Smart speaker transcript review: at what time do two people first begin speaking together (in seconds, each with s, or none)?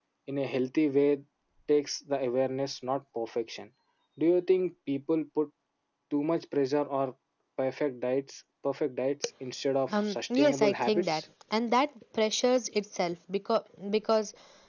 9.9 s